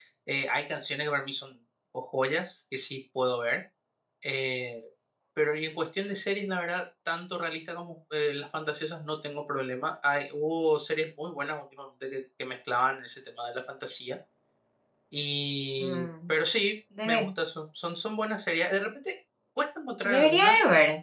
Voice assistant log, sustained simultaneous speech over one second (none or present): none